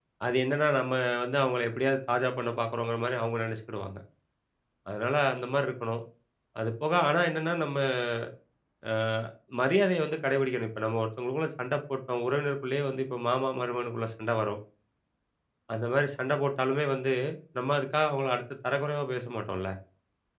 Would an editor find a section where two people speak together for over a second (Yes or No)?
No